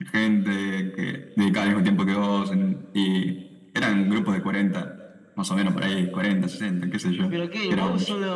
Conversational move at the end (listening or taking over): taking over